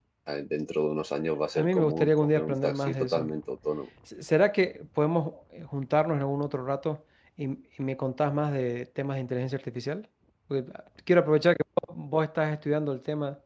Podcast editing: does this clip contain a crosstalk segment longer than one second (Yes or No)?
Yes